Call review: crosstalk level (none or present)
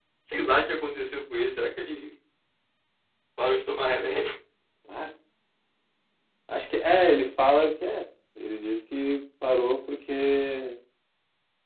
none